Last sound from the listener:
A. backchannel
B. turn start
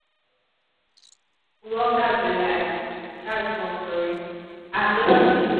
B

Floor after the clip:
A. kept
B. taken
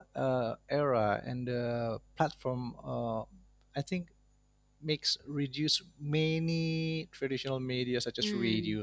A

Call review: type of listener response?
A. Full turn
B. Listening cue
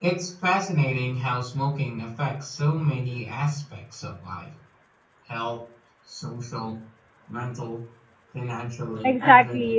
A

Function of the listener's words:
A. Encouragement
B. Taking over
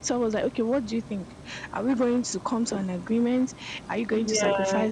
A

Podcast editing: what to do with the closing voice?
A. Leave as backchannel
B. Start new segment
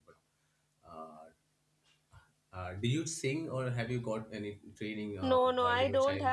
B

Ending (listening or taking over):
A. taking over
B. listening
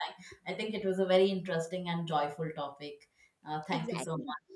A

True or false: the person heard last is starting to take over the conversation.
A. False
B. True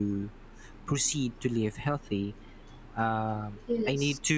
A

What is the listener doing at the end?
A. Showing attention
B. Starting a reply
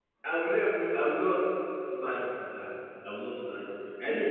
A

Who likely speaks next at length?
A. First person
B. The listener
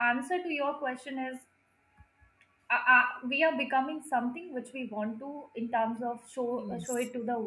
A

